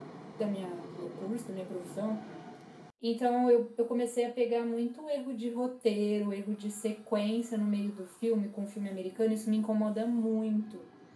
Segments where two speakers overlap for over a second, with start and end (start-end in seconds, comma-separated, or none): none